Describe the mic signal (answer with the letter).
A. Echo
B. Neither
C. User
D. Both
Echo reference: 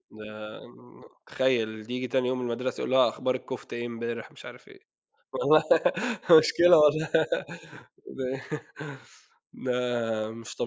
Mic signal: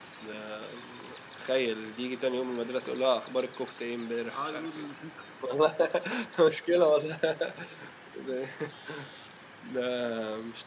D